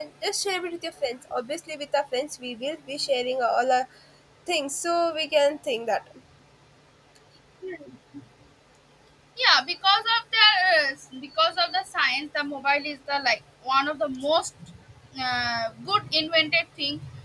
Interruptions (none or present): none